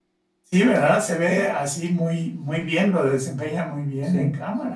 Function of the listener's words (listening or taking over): listening